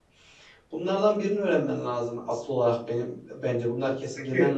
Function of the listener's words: listening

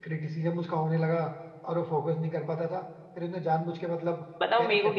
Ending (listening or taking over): taking over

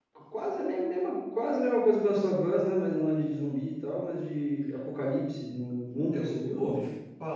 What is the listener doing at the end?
taking over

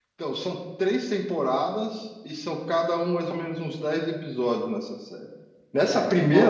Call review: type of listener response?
taking over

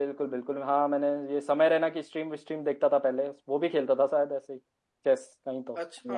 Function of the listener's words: taking over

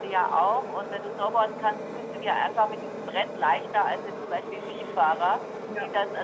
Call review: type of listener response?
listening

